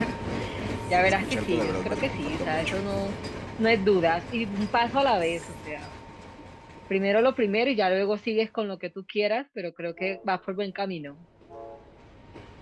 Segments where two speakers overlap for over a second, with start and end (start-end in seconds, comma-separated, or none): 1.0-2.8